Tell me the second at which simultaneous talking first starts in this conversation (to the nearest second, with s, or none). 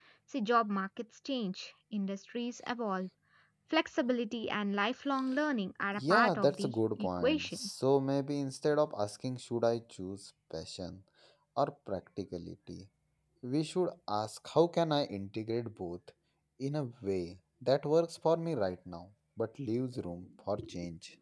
6 s